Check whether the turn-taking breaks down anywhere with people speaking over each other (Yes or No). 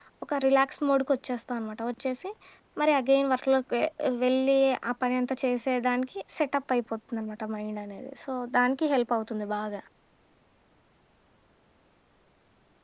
No